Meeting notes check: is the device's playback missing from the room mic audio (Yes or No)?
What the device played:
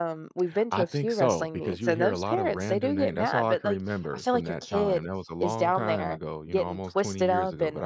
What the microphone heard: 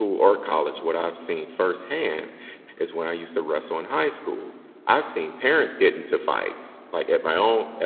Yes